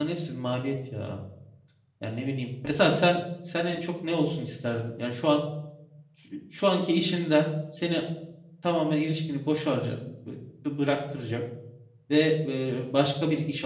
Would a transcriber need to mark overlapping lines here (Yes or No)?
No